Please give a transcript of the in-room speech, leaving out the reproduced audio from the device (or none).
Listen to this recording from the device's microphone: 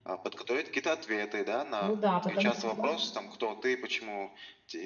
Ну да, потому что я,